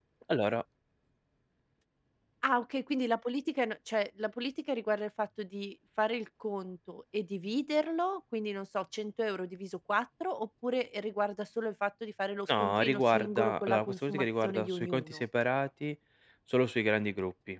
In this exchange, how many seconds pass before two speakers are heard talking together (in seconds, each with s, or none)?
12.5 s